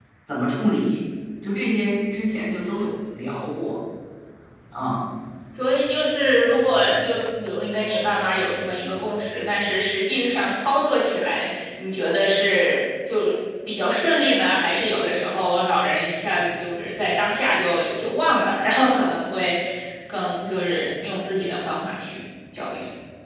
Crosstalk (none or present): none